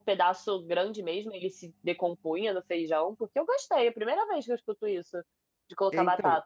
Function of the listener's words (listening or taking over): taking over